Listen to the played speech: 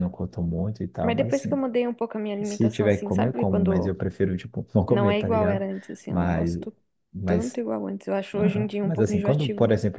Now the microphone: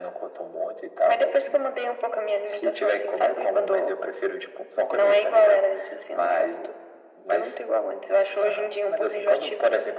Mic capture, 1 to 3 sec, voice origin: echo only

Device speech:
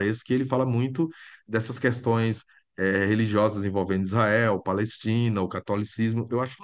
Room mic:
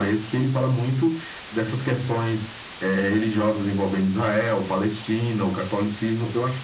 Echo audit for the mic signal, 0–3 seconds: echo only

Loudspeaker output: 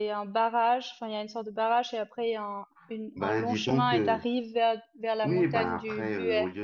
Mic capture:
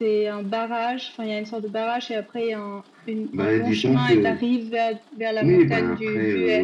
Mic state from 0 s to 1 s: echo only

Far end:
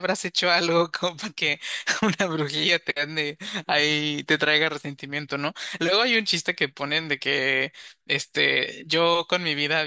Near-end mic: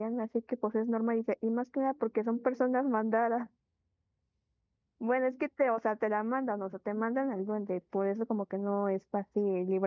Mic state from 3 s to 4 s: user only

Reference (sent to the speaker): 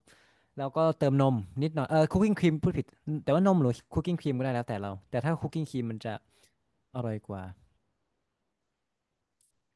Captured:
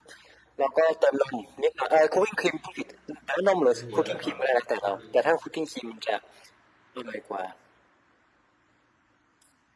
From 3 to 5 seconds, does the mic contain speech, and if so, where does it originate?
both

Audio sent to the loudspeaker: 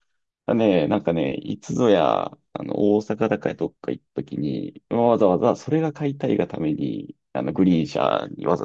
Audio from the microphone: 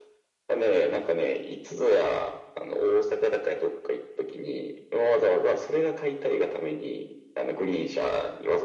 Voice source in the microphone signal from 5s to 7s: echo only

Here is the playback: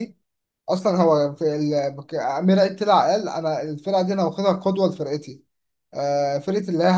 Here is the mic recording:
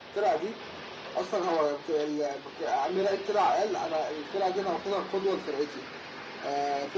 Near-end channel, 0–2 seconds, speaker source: echo only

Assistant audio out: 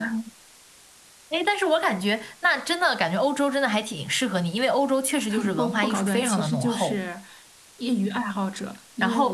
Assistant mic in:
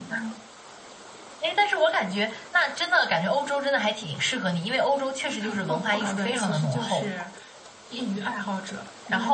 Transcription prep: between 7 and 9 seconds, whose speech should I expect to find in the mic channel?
echo only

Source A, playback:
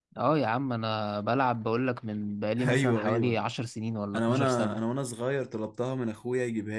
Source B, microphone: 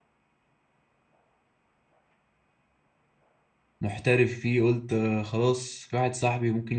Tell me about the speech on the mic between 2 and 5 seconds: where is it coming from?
user only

